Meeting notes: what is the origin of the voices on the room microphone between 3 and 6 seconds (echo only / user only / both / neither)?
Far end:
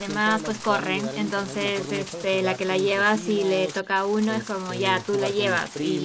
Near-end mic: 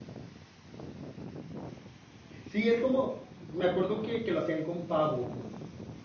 user only